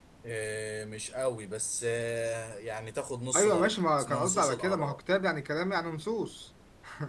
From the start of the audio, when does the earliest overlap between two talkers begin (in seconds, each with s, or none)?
3.3 s